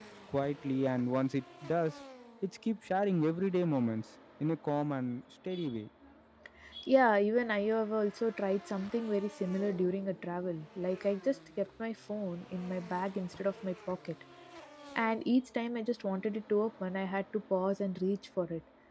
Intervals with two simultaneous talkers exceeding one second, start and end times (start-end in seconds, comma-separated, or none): none